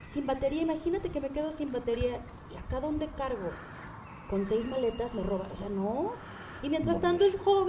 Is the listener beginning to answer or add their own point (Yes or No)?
No